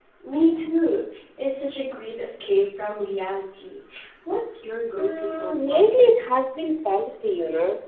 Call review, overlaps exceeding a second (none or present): present